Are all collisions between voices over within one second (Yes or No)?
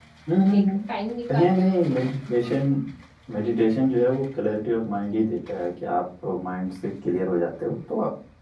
Yes